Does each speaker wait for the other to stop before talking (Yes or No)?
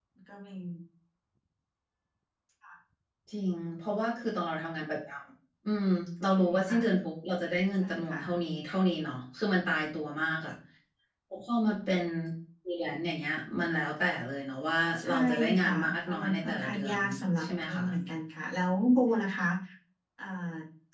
No